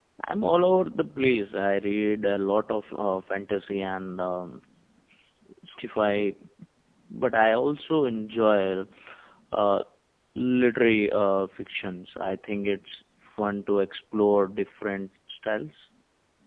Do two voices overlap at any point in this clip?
No

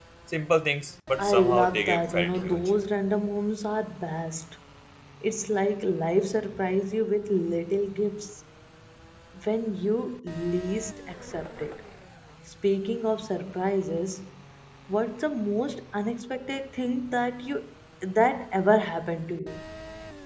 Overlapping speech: Yes, from 1.2 s

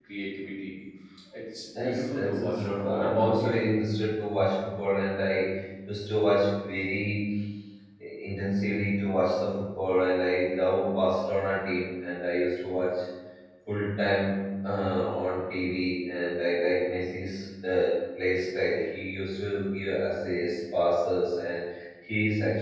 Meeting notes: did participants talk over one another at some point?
Yes, from 1.8 s

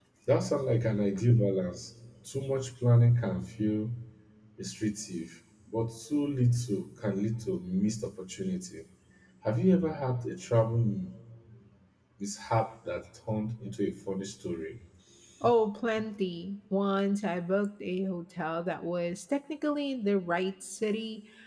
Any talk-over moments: No

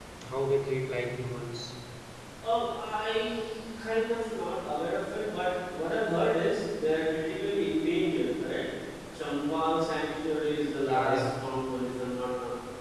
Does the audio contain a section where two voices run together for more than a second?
No

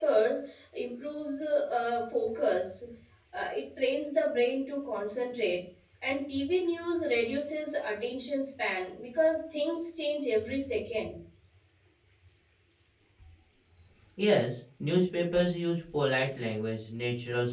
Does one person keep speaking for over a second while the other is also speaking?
No

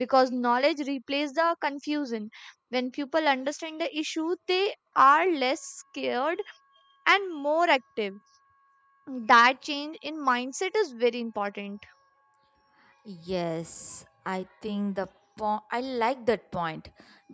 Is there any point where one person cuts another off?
No

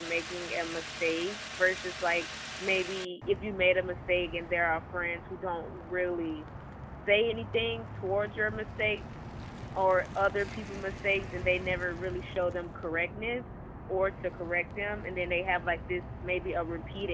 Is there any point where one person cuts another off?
No

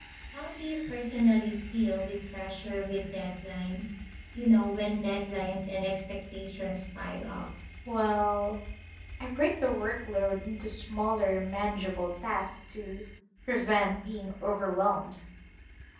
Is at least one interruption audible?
No

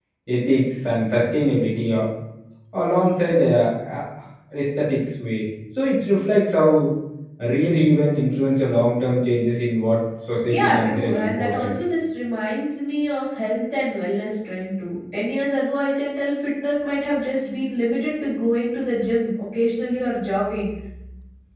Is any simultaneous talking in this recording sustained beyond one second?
Yes, from 10.5 s

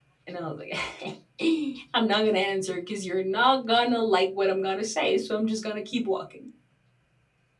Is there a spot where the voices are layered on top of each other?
No

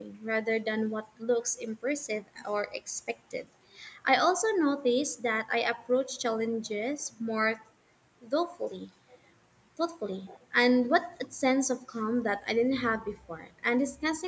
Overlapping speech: No

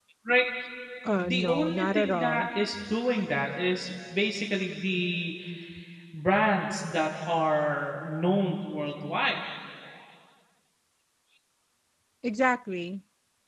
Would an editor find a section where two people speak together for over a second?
Yes, from 1.2 s

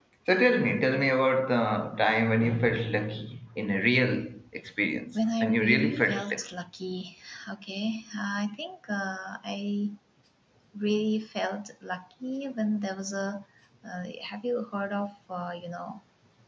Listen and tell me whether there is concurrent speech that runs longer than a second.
Yes, from 5.1 s

